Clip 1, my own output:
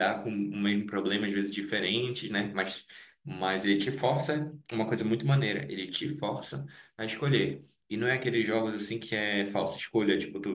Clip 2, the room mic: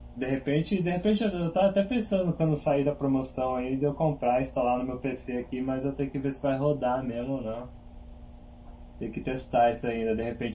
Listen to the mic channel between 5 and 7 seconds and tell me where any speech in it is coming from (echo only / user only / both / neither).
user only